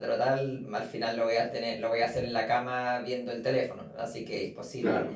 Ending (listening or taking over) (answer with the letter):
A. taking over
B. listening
A